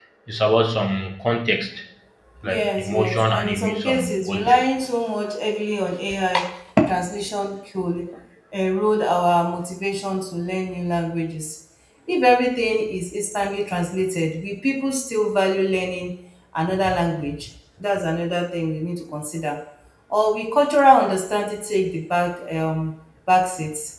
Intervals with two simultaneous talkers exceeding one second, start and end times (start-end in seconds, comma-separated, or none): 2.4-4.6